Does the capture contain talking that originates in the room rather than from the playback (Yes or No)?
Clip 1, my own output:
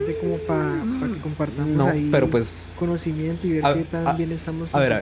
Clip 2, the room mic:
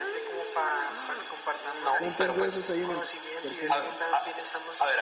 Yes